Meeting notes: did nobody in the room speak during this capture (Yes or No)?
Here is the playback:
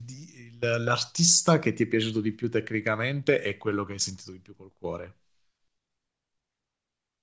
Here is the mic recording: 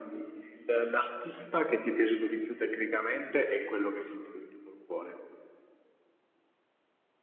Yes